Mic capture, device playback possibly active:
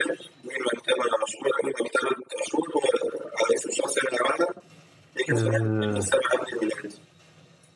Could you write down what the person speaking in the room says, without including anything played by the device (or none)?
اه